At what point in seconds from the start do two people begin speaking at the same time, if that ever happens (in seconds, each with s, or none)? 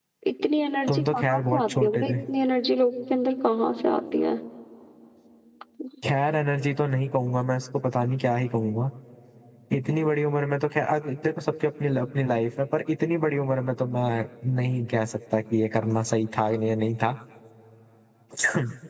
0.9 s